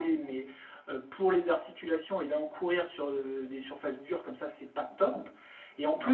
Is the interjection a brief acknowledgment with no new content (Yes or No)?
Yes